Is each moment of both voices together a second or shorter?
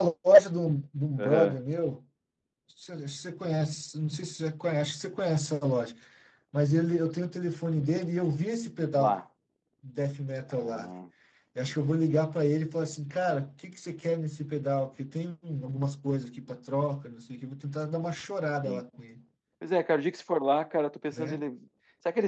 Yes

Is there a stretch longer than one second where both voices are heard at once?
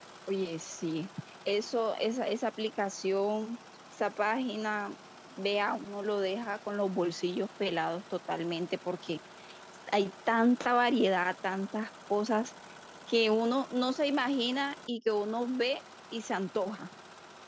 No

